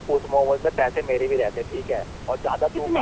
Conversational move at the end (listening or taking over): listening